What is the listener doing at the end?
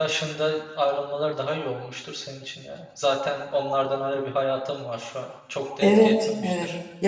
taking over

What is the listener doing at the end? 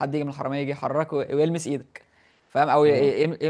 listening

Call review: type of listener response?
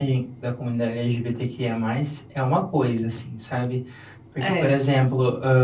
listening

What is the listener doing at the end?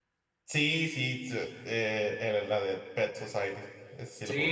taking over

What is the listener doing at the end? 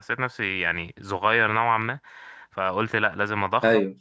listening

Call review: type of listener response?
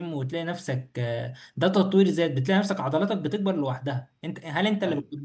listening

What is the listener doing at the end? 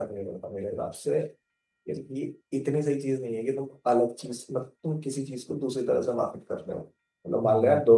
taking over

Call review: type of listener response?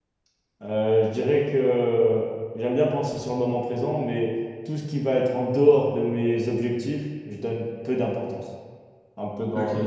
taking over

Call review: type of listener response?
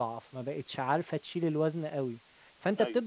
listening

